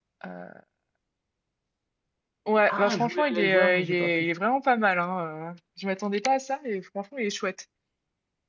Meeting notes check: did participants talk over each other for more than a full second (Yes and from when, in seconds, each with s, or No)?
Yes, from 2.7 s